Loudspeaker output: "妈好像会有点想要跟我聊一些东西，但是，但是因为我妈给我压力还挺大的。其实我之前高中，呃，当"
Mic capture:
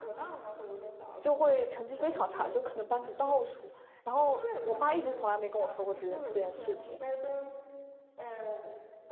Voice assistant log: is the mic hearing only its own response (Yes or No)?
No